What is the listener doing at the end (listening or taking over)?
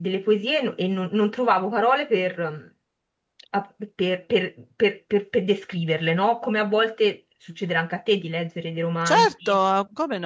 taking over